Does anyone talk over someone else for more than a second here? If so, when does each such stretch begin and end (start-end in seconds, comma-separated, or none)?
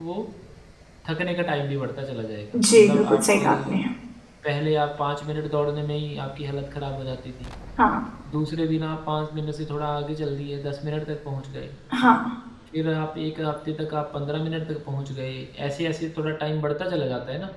2.6-3.8